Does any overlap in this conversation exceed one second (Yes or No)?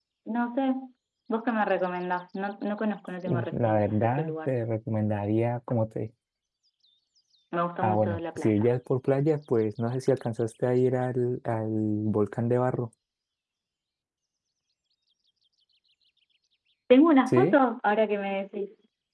Yes